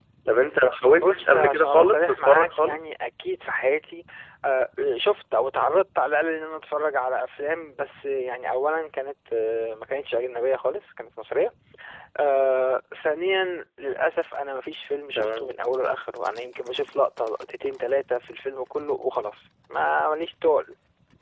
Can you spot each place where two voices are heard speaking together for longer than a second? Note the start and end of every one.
0.9-2.8

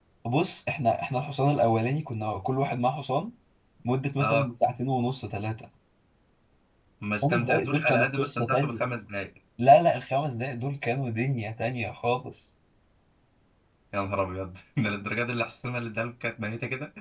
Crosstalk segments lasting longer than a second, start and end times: 7.2-8.8

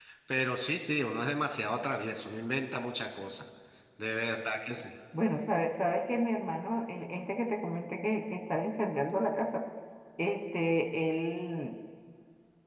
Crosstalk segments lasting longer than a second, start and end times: none

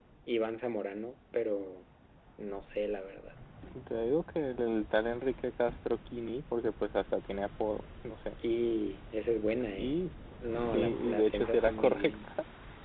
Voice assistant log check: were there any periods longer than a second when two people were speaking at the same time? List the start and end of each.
10.7-12.2

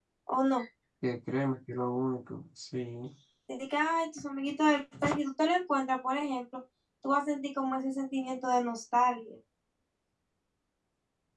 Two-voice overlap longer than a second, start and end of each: none

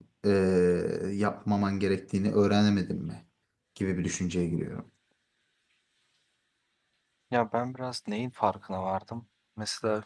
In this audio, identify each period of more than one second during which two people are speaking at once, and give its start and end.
none

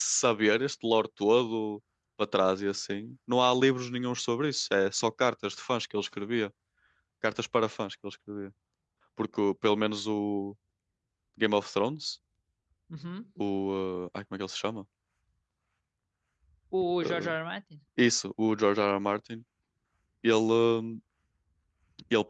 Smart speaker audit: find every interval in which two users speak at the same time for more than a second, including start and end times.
none

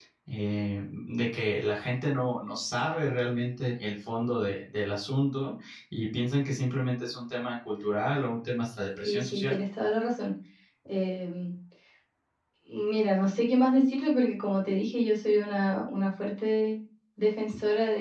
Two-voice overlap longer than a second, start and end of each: none

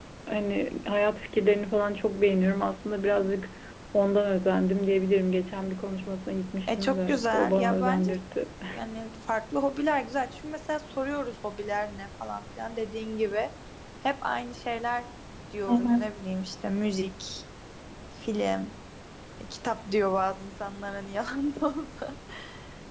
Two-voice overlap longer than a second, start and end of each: 6.7-8.1

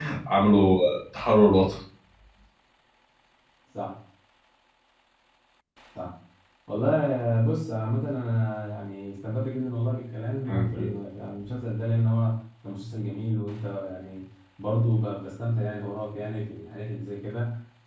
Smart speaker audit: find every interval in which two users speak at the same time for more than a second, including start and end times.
none

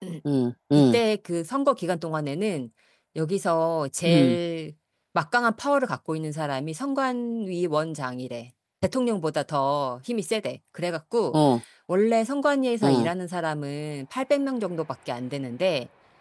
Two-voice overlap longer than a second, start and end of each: none

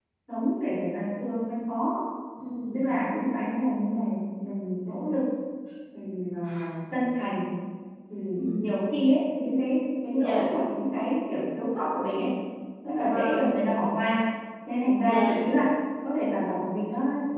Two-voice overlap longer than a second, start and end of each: none

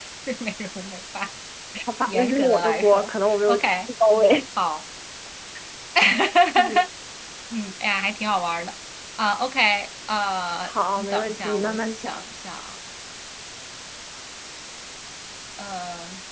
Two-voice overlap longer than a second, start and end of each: 2.1-3.7, 10.6-12.2

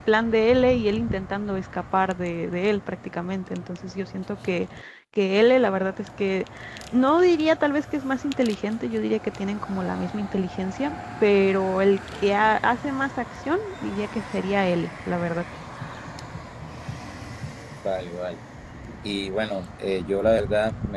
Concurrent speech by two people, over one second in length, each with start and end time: none

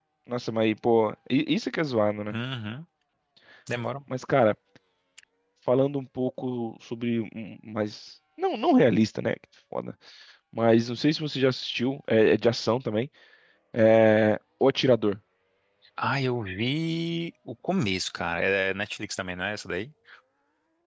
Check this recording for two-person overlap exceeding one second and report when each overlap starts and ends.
none

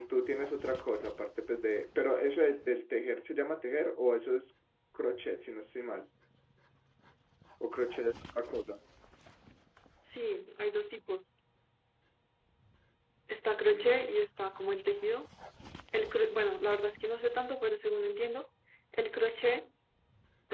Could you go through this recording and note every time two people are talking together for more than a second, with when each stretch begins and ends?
none

